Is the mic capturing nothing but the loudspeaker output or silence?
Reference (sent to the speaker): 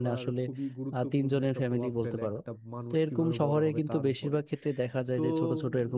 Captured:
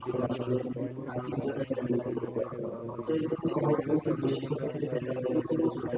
No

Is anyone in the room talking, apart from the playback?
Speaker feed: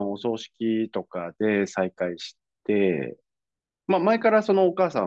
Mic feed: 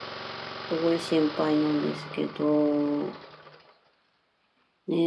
Yes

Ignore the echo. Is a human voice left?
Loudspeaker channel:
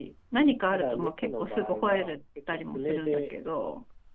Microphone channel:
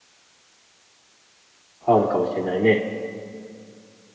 Yes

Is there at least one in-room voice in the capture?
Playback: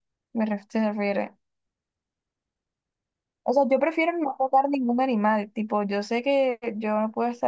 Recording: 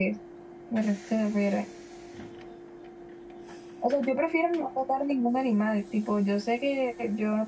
No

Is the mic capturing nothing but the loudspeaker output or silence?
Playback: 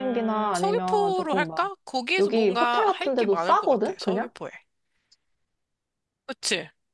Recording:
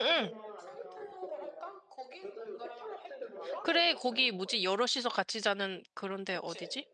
No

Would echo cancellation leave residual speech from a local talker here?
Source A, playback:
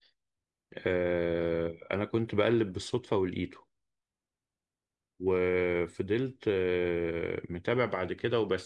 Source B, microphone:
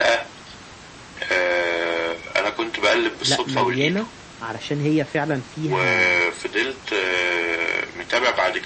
Yes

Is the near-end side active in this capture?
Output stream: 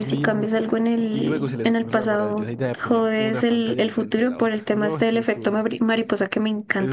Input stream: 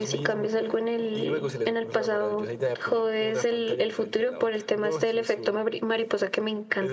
No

